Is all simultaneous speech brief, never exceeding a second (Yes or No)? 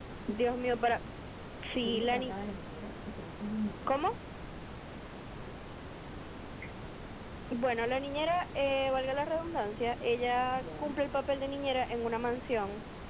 Yes